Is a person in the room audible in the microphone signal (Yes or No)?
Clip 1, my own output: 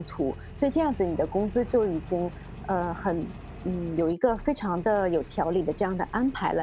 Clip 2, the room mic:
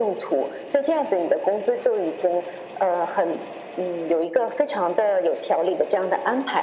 No